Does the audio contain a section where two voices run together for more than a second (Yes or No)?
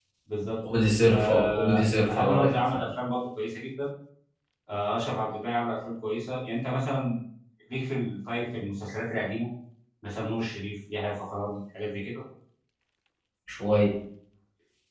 Yes